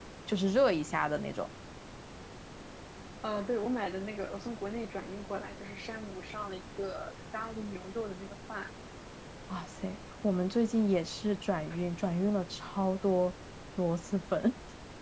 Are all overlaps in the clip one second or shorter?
Yes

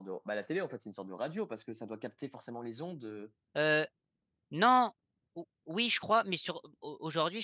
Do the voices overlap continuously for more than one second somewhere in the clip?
No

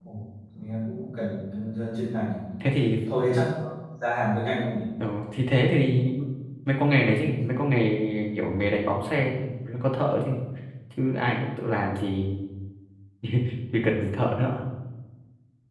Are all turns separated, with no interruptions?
Yes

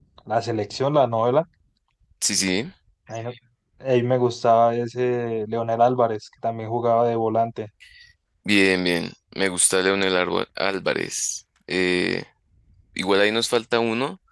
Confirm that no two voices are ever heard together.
Yes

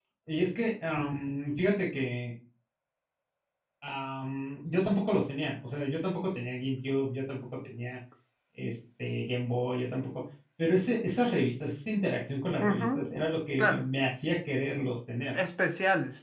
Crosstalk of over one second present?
No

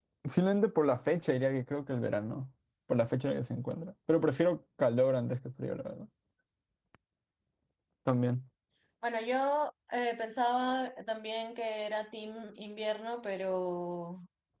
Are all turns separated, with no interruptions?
Yes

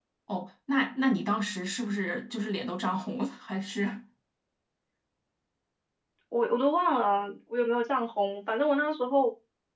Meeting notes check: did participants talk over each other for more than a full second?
No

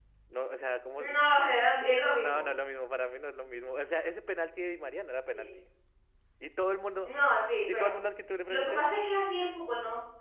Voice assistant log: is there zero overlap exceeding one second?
Yes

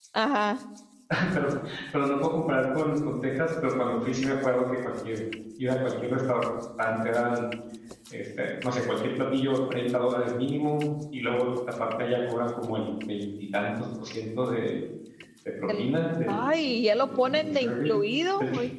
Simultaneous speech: Yes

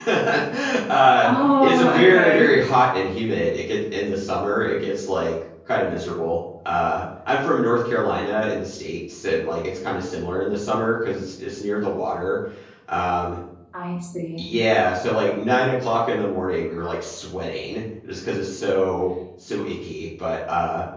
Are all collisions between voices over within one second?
No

